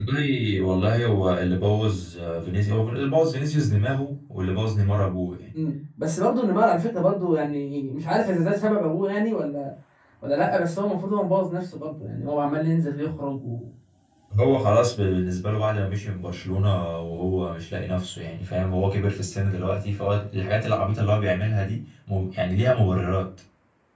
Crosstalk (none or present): none